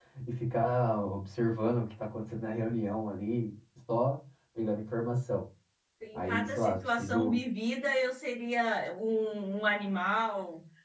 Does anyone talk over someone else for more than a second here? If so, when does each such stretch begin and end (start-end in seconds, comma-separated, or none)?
6.2-7.4